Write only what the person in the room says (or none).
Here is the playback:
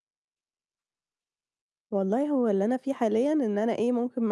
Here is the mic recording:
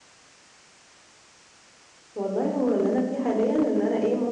none